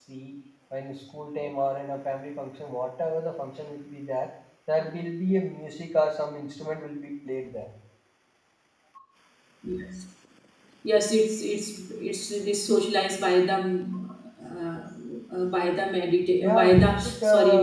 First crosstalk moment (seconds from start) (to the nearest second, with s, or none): 16 s